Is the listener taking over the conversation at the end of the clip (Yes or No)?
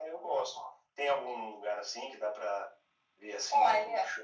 No